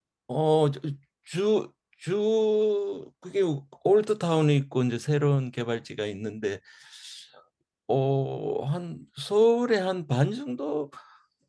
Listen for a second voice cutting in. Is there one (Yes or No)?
No